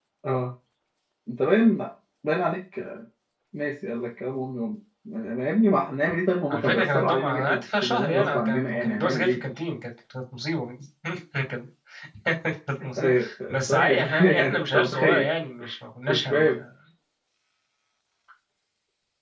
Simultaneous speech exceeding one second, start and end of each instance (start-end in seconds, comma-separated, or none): 6.5-9.4, 13.7-15.3